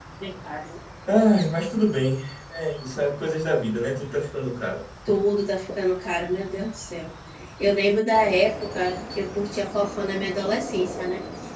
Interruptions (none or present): none